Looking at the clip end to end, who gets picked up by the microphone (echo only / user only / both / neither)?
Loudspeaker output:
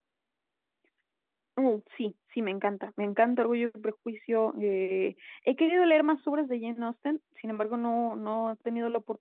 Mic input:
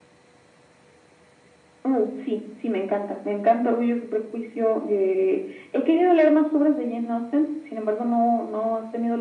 echo only